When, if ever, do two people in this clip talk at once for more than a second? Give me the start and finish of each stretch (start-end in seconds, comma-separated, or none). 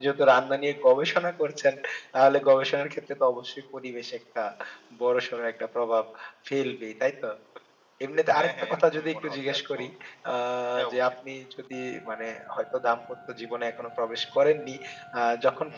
8.3-9.9